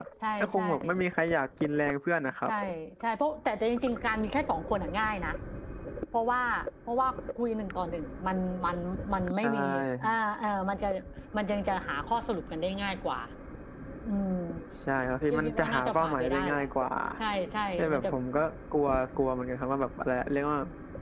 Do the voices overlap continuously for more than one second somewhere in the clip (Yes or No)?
Yes